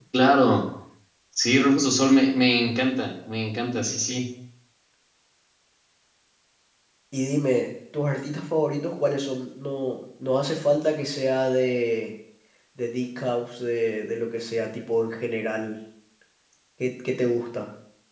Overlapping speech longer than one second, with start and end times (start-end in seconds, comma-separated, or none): none